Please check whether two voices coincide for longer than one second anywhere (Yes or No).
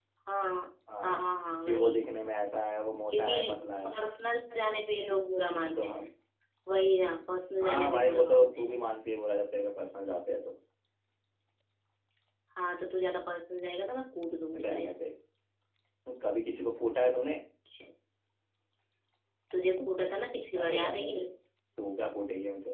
Yes